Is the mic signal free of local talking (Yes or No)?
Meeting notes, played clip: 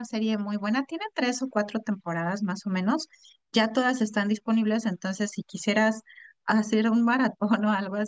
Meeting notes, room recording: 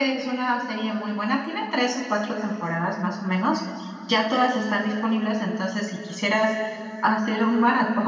Yes